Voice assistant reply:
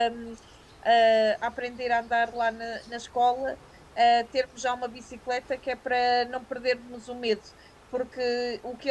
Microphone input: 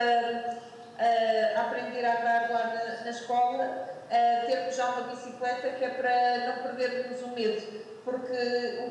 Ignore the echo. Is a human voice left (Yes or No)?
No